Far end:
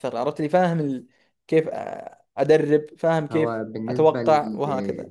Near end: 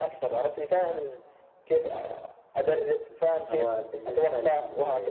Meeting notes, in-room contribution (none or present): none